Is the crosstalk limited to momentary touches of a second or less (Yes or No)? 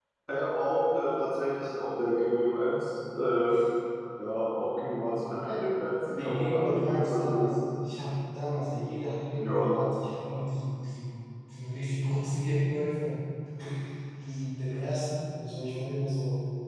No